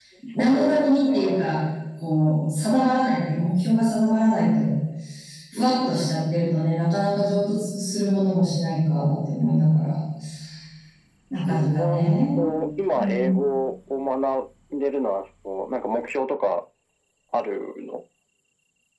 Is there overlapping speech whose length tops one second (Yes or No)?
Yes